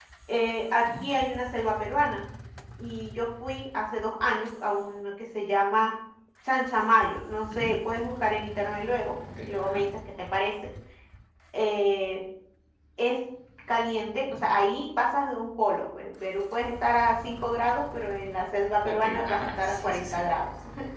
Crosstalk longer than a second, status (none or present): present